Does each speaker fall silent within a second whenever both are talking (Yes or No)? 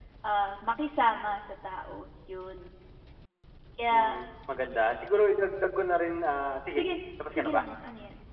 Yes